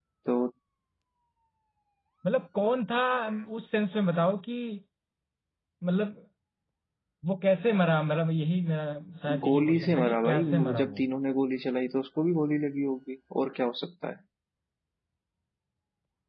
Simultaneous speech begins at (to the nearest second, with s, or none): 9 s